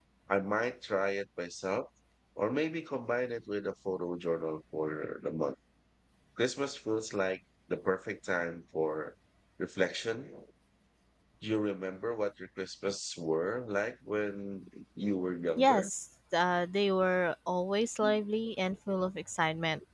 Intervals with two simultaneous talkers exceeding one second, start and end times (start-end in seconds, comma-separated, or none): none